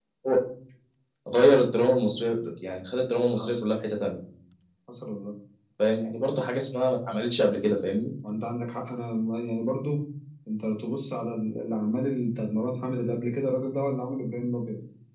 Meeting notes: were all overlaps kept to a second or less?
Yes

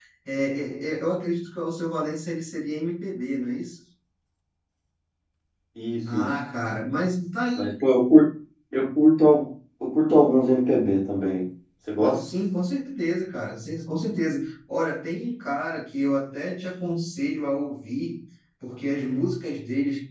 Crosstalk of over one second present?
No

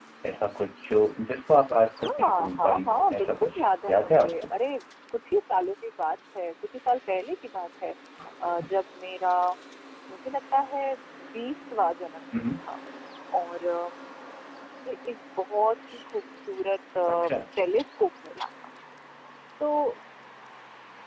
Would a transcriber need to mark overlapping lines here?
Yes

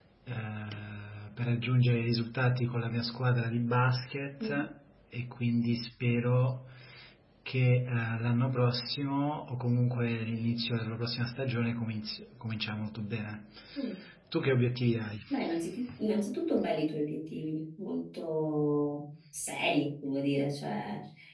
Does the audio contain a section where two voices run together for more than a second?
No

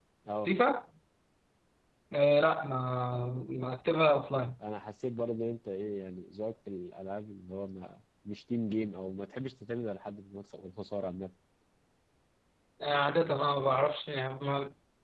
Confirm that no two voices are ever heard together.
Yes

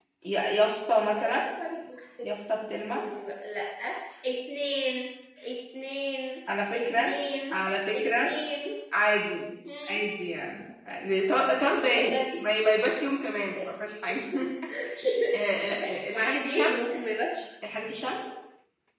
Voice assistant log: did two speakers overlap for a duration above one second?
Yes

